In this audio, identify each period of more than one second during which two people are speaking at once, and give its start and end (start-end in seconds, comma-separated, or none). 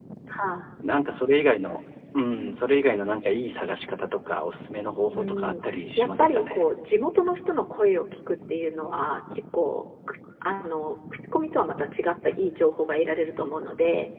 5.1-6.6